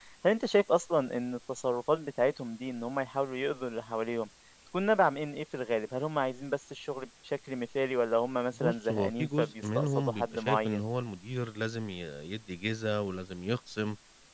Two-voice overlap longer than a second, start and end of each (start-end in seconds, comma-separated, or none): 8.6-10.8